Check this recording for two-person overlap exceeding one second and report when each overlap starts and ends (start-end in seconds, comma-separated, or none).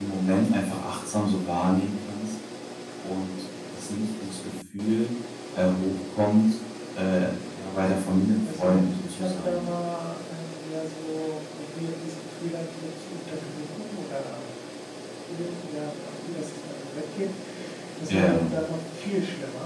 8.4-9.7